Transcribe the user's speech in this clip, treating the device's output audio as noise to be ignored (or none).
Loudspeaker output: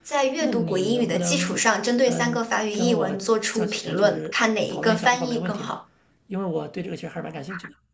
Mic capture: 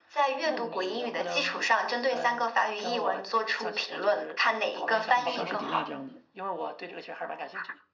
像莎士比亚这样的，